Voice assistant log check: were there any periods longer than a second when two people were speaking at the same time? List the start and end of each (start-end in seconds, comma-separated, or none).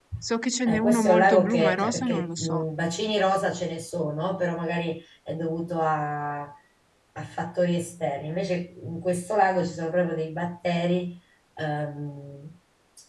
0.7-2.6